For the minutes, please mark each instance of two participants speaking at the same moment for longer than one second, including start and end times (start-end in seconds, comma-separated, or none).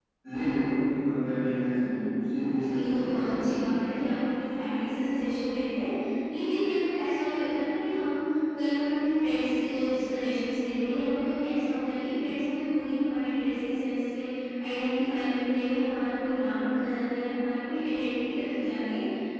2.5-4.0